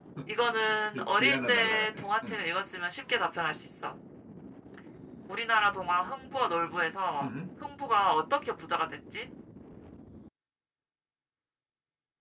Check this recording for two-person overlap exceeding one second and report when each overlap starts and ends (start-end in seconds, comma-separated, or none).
0.9-2.4